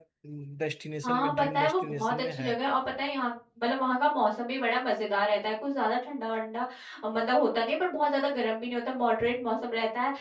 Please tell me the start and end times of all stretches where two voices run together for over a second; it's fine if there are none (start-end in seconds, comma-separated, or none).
1.0-2.5